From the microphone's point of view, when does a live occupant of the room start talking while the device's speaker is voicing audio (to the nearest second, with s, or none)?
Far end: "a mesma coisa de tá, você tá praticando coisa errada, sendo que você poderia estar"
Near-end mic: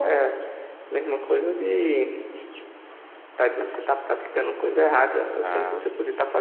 5 s